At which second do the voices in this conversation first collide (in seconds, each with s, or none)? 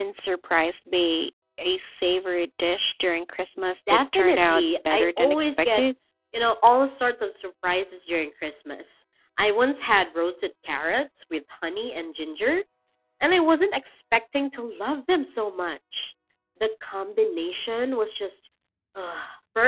3.9 s